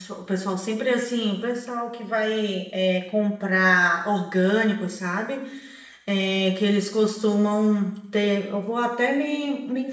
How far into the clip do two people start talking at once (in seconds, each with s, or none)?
none